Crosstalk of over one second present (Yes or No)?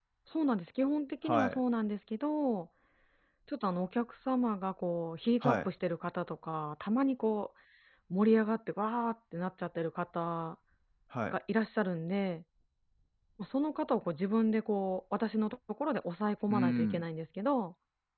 No